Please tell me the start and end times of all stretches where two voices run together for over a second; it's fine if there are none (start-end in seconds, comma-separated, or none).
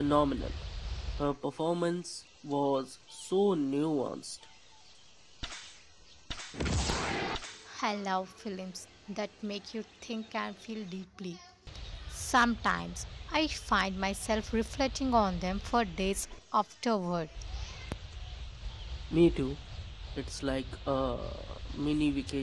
none